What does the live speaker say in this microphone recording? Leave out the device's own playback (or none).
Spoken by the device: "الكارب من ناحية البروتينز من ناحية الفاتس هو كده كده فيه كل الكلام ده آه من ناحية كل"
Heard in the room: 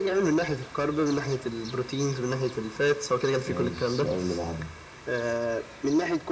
ماشي السؤال اللي بعده